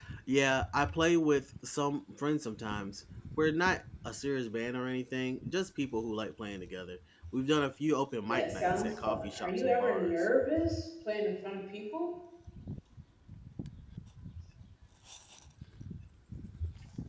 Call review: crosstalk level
present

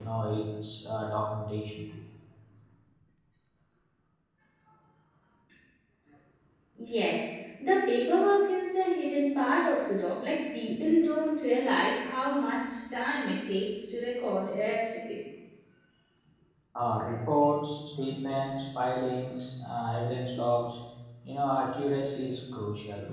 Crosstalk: none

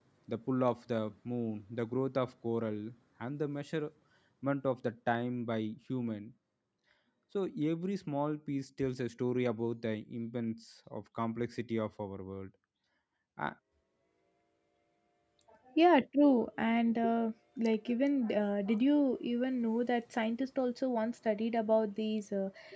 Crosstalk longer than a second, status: none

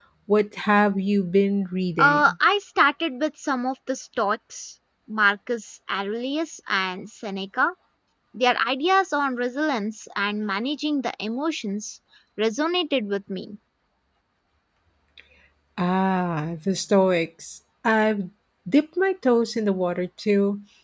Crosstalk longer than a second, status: none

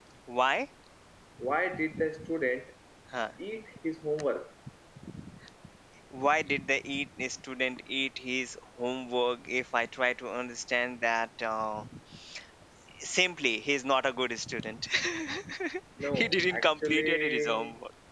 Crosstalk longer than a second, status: present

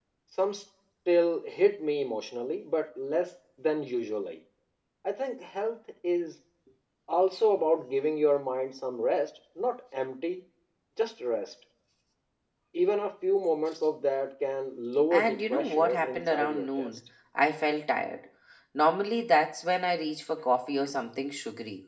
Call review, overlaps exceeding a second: present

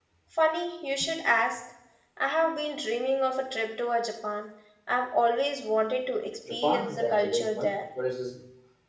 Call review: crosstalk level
present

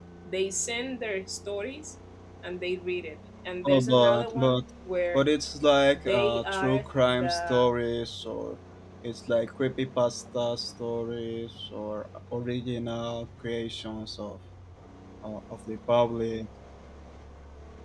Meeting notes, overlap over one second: present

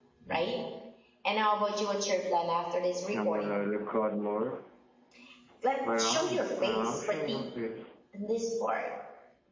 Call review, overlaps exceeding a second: present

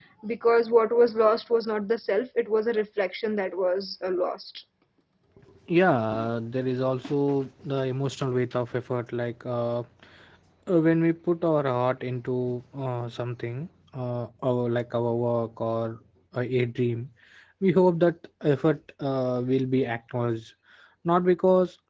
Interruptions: none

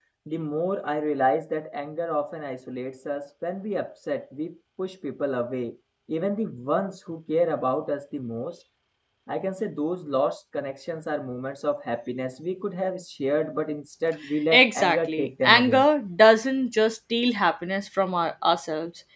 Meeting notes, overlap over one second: present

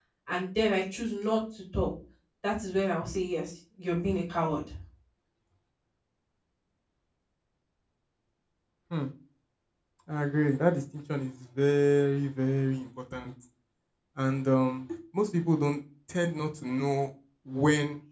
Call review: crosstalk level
none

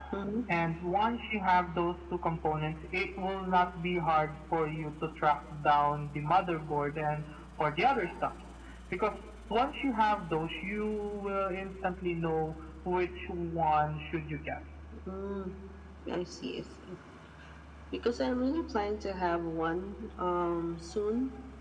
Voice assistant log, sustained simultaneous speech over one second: none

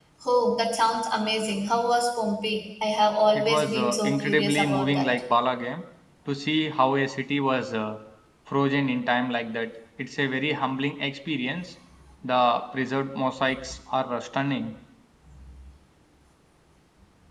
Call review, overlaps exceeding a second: present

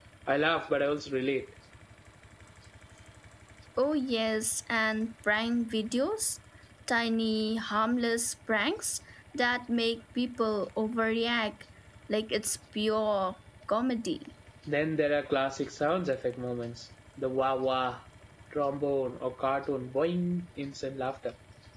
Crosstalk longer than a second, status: none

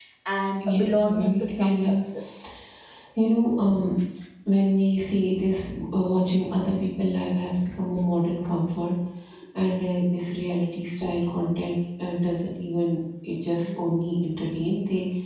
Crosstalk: present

